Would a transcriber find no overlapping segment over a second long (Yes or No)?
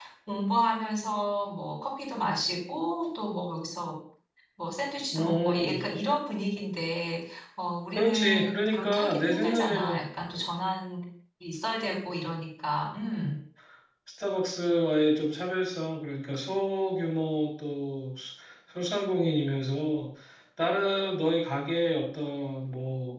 No